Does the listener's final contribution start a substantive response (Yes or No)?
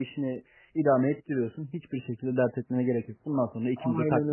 Yes